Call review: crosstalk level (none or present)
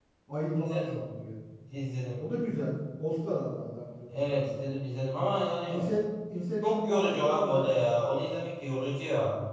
present